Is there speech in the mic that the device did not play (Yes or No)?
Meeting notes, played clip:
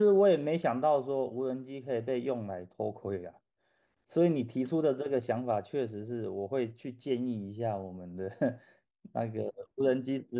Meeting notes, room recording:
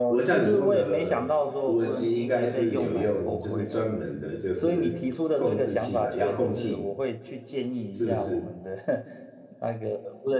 Yes